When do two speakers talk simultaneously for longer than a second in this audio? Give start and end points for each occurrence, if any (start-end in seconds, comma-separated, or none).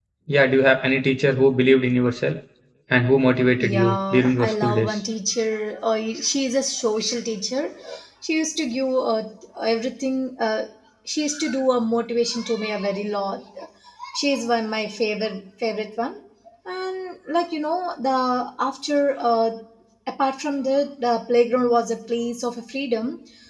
3.5-5.0